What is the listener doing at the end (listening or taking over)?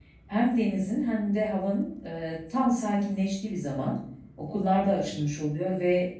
listening